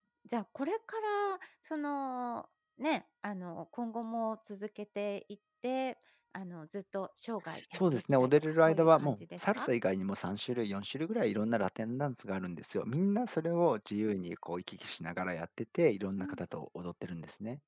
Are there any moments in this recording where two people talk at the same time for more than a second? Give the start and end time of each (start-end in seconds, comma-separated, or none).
7.7-9.7